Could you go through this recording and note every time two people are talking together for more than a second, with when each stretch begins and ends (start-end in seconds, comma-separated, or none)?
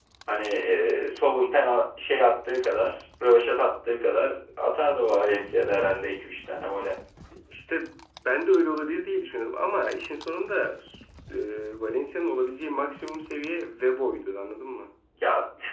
none